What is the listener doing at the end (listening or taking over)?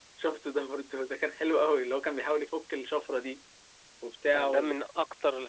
taking over